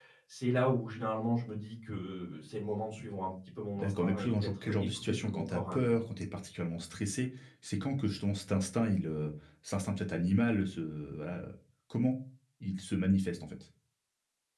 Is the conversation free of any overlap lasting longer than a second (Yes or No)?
No